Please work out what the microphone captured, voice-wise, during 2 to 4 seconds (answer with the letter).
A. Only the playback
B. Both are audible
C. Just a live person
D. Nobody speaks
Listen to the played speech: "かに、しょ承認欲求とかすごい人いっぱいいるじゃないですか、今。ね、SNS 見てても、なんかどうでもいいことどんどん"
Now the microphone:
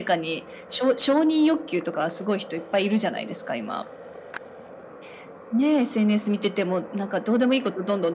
A